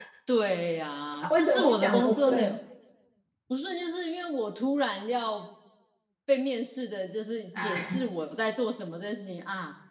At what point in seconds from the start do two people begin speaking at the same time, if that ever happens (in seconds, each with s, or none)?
1.2 s